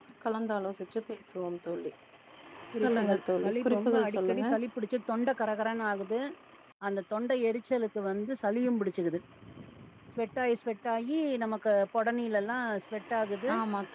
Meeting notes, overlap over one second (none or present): present